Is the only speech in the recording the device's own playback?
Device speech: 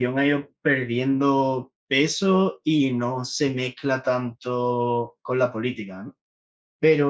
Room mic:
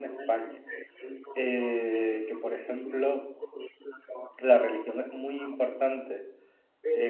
No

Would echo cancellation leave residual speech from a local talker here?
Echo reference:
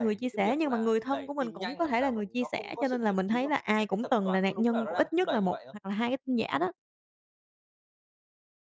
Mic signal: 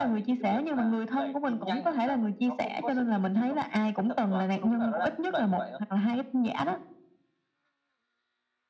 No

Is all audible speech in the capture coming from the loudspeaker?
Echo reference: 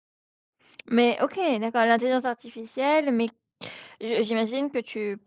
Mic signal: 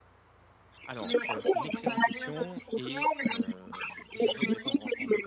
No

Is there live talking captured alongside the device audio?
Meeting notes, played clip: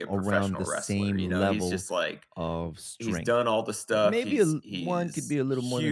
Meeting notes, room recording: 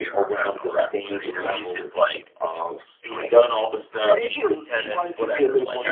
Yes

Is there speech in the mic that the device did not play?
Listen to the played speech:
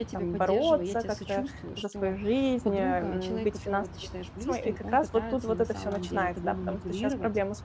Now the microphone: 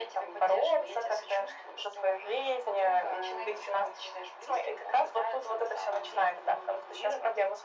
No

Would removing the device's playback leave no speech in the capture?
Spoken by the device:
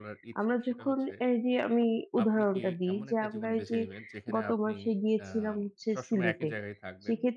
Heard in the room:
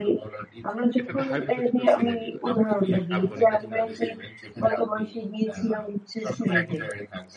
No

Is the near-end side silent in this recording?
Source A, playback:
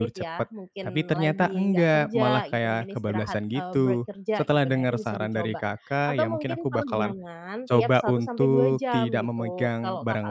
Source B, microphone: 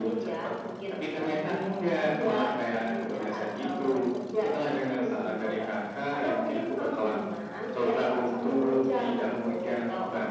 Yes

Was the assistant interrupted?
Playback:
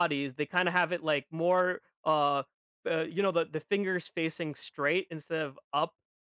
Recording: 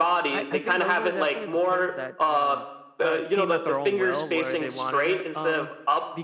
Yes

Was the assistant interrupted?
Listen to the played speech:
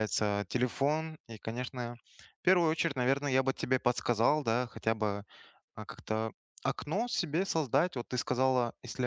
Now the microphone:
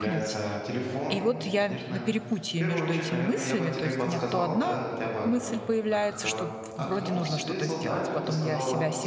Yes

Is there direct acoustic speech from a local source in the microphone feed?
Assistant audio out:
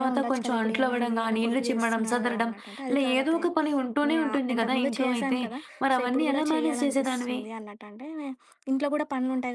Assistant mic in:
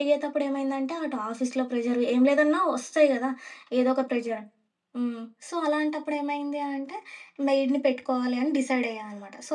Yes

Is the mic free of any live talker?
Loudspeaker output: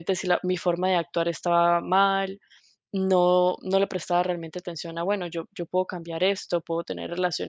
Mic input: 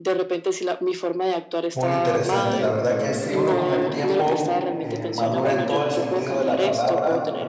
No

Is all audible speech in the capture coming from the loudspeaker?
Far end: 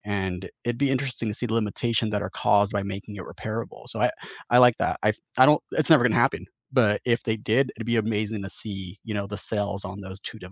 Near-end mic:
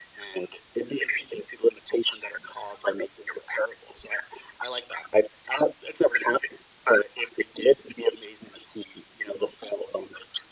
Yes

